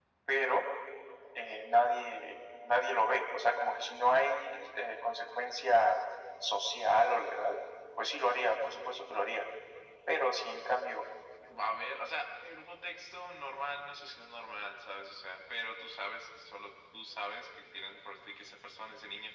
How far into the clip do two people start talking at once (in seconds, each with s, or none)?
none